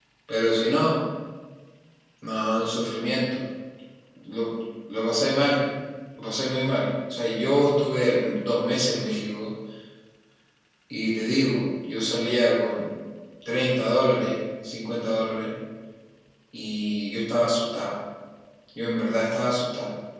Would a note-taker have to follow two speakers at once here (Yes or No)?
No